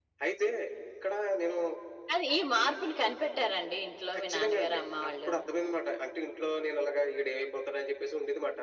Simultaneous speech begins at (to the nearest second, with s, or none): 4 s